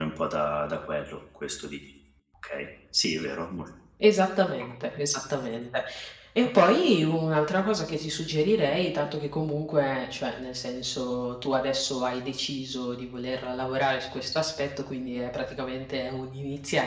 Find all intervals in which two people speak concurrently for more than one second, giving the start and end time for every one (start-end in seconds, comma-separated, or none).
none